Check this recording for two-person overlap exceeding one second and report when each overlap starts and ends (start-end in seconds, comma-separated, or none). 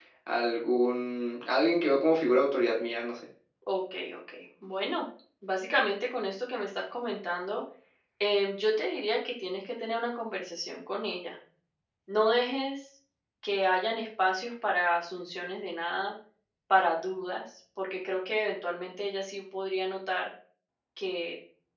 none